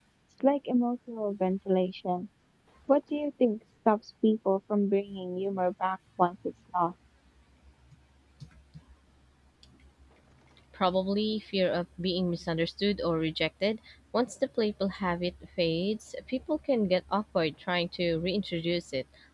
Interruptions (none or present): none